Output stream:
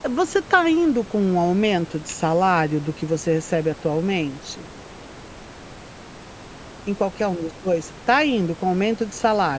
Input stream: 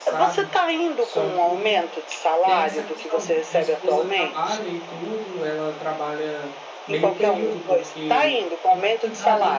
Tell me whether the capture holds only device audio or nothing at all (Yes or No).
No